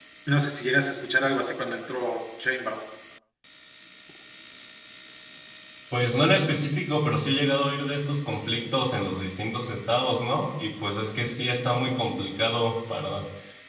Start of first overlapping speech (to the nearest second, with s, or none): none